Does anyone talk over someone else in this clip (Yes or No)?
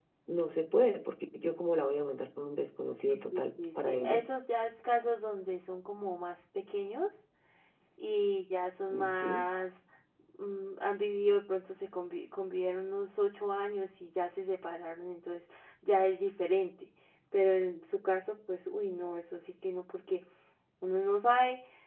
Yes